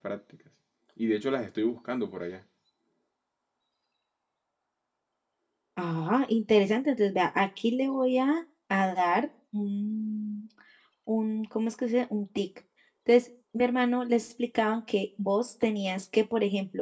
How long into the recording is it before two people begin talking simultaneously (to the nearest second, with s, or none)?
none